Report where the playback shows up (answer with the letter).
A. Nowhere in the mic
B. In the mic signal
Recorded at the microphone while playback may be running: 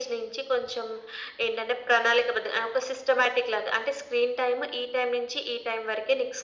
B